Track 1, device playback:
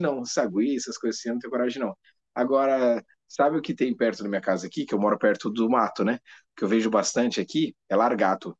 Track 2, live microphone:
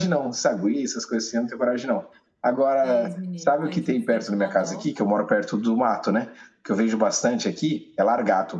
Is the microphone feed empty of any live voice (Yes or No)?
No